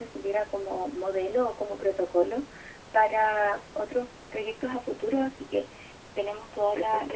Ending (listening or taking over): listening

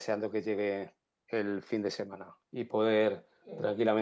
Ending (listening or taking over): listening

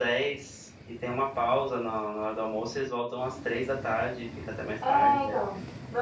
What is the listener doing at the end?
taking over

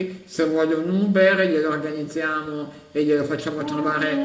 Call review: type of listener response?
taking over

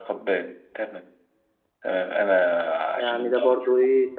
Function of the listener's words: taking over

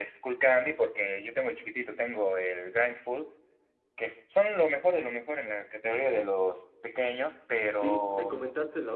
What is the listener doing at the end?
taking over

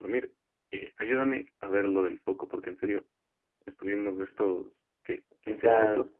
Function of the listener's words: listening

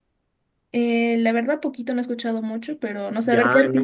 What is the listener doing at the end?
taking over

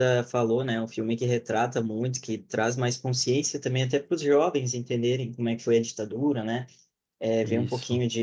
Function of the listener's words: listening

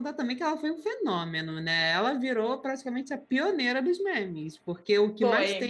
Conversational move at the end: listening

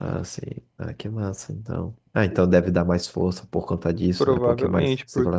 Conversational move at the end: taking over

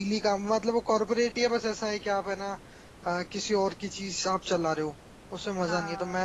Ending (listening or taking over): listening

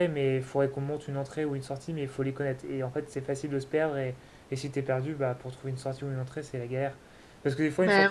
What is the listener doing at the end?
listening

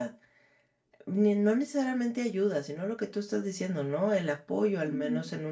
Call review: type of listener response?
taking over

